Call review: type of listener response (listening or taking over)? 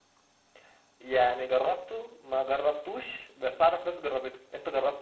taking over